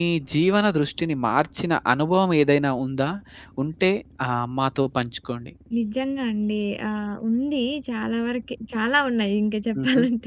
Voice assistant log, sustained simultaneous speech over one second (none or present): none